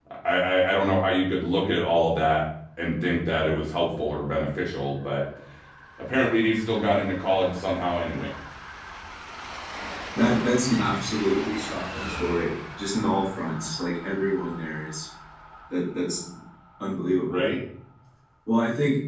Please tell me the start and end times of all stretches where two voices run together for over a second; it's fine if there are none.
none

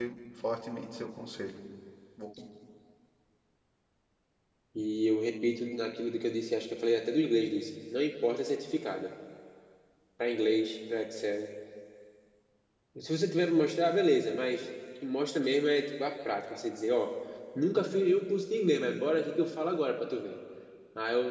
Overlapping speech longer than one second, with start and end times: none

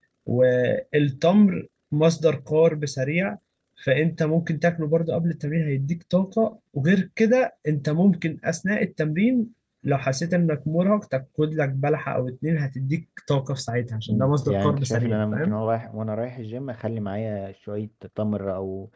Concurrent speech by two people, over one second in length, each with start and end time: 14.1-15.6

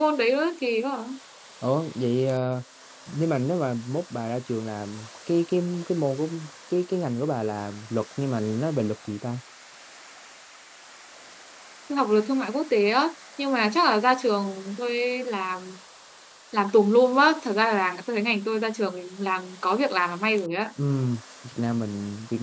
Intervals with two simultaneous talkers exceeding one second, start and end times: none

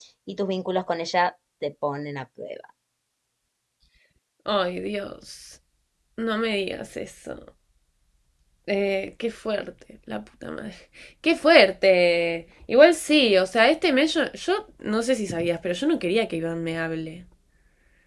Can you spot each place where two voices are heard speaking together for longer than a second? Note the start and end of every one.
none

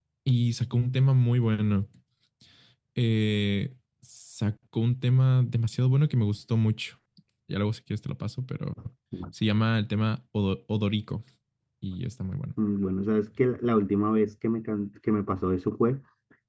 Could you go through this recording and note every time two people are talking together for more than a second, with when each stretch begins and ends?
none

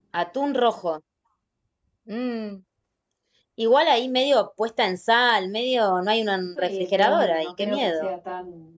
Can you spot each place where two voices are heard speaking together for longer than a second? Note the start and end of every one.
6.6-8.1

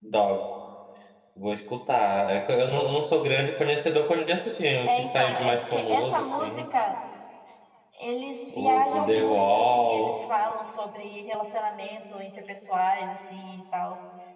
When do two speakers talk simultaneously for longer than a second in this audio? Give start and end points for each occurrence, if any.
4.9-6.6, 8.5-10.1

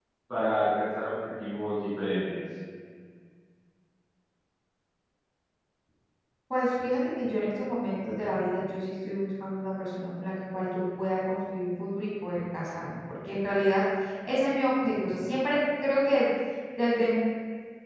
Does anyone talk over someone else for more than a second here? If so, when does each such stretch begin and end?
none

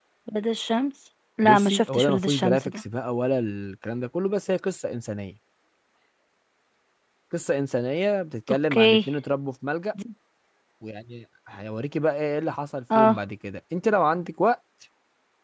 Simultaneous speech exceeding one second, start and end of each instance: 1.4-2.8

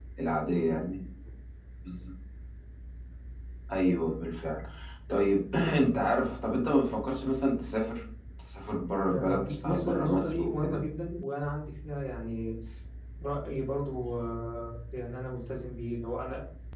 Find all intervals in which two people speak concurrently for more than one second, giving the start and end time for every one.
9.1-10.8

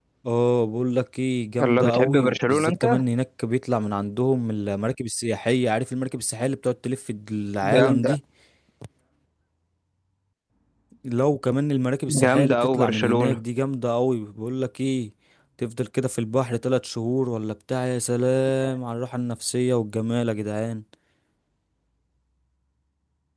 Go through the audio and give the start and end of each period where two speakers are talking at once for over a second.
1.6-2.8, 12.1-13.4

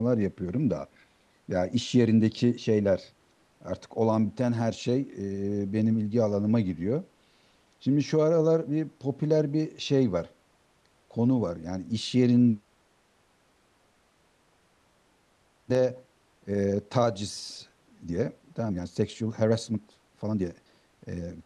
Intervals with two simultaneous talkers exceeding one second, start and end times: none

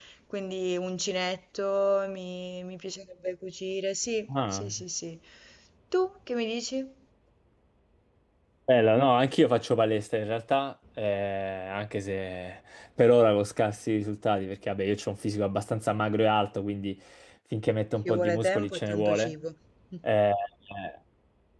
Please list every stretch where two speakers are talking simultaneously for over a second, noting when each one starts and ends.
18.1-19.3

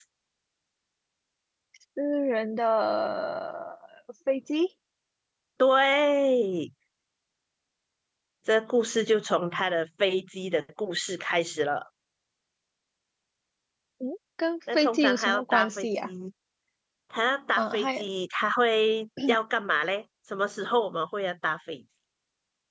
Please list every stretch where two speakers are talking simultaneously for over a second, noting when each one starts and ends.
14.7-16.1

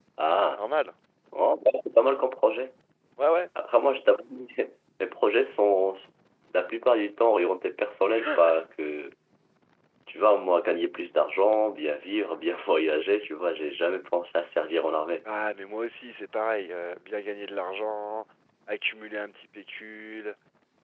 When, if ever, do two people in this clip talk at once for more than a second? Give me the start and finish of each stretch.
none

